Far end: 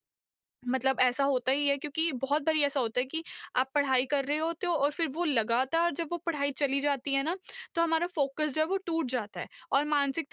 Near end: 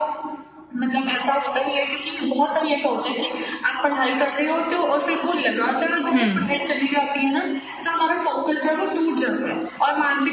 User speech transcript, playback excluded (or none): हुँ,